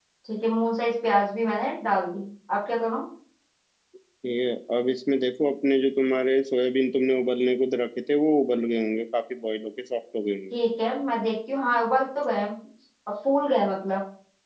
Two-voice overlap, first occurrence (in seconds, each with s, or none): none